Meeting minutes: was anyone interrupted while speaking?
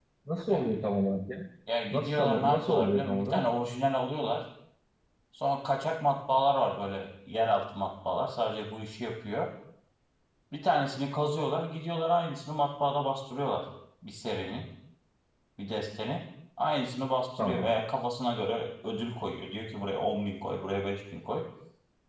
Yes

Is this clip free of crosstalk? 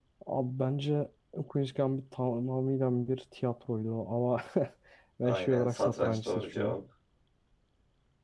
No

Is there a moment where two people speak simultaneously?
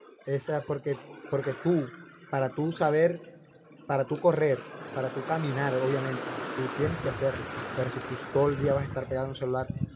No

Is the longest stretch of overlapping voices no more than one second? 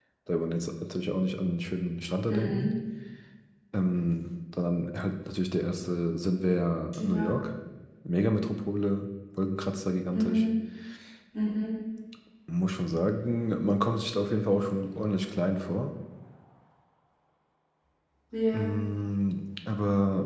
Yes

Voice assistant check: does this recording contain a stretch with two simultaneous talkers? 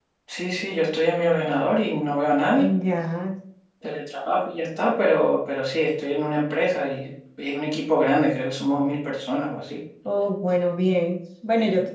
No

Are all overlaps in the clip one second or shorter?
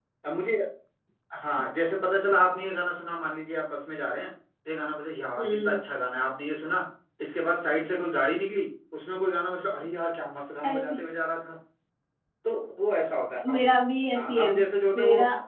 Yes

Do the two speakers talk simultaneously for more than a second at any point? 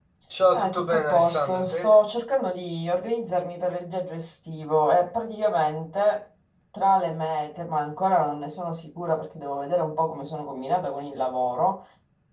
Yes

